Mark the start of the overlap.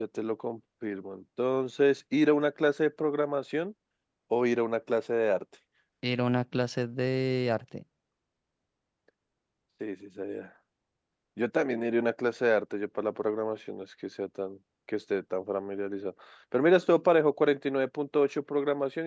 none

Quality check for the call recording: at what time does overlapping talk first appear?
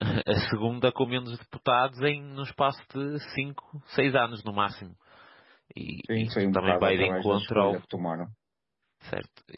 6 s

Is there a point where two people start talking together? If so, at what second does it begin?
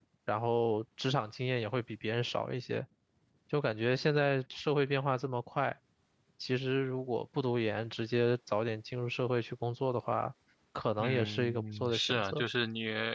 11 s

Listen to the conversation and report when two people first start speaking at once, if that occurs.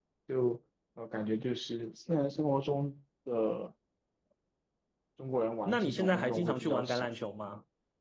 6 s

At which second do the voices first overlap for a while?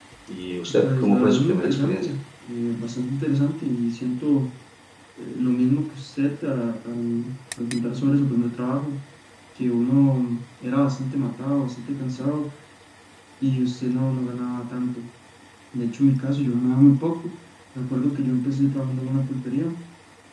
1 s

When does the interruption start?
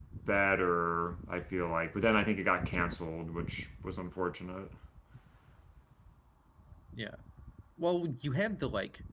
none

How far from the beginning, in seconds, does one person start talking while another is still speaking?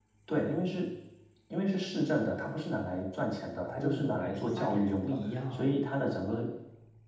4 s

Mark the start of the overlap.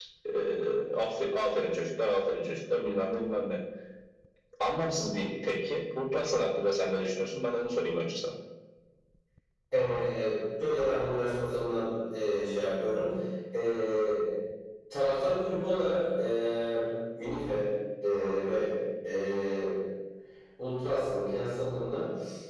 none

